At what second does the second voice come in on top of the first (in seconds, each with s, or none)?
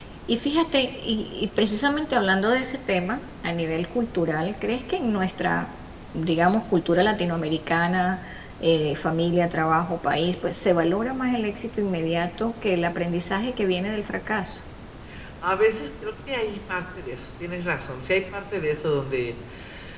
none